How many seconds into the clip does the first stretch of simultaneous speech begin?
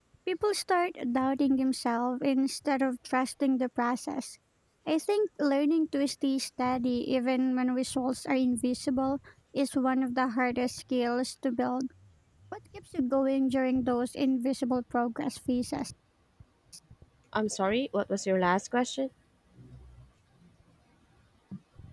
none

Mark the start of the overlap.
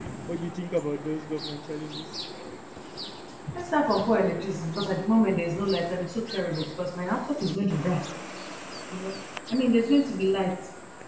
none

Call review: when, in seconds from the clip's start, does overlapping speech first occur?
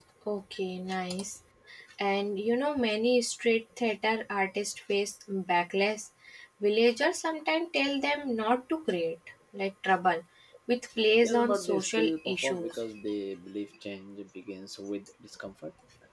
11 s

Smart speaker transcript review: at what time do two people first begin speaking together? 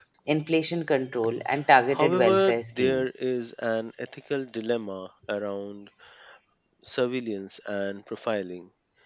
2 s

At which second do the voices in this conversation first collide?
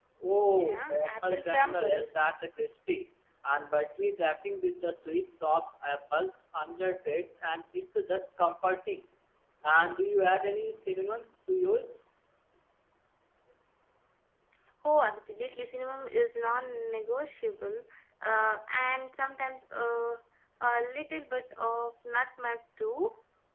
1 s

